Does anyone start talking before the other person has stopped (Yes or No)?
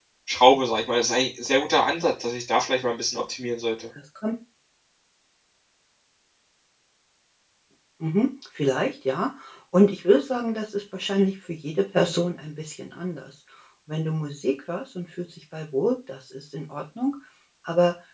No